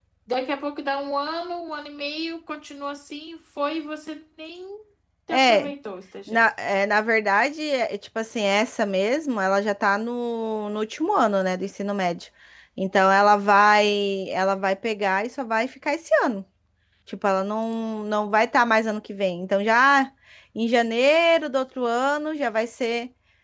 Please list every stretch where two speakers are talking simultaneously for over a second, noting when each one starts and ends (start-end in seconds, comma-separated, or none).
none